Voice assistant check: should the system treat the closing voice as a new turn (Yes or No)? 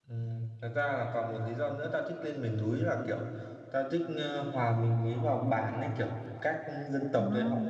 No